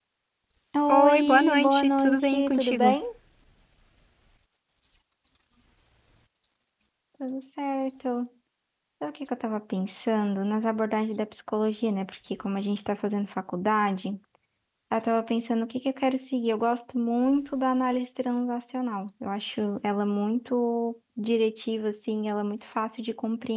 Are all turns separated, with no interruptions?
No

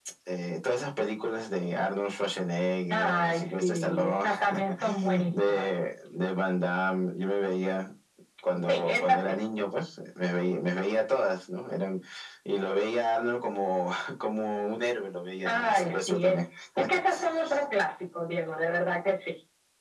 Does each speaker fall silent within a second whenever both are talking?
No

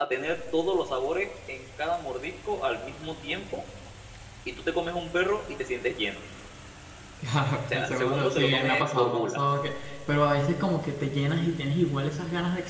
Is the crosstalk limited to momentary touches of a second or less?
No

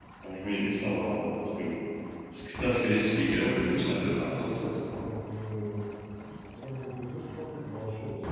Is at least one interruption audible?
Yes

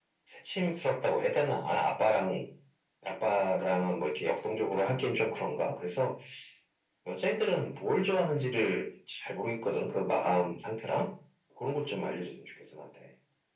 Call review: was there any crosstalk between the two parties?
No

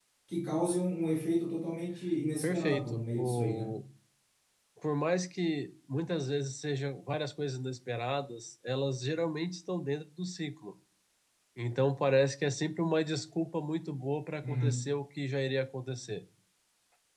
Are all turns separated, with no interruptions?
No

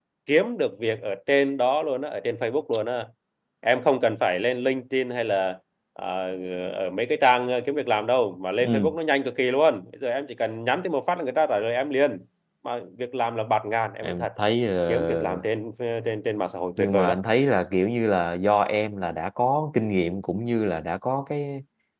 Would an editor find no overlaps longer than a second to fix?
Yes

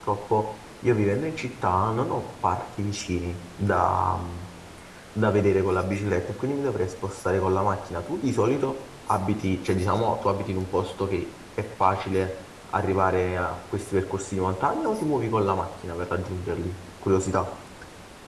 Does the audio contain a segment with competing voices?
No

